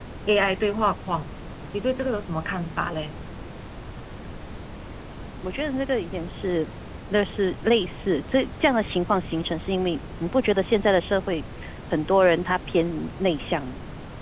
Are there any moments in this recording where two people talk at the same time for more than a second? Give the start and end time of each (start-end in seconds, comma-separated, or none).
none